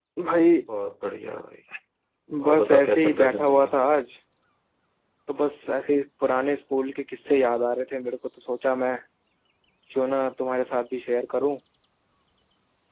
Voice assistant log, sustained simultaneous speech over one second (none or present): present